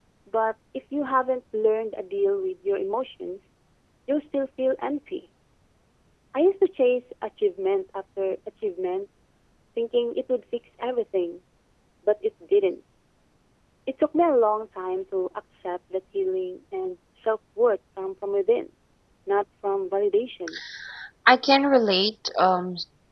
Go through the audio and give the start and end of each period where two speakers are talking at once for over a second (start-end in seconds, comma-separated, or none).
none